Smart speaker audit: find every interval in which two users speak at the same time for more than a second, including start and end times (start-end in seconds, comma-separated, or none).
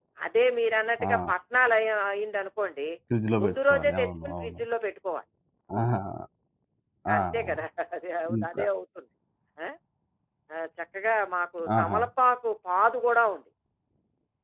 3.4-4.6